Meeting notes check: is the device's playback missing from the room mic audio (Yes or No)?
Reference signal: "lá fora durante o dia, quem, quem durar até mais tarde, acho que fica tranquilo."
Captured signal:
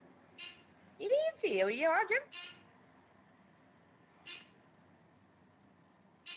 Yes